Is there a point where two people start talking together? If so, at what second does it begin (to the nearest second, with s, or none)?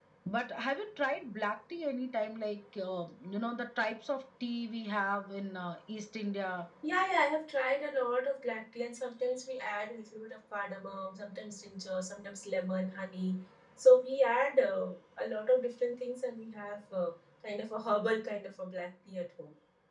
none